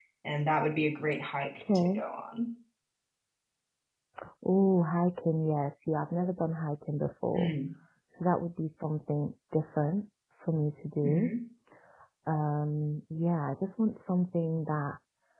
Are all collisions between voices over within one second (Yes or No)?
Yes